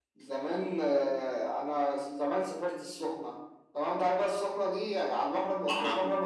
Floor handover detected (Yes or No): No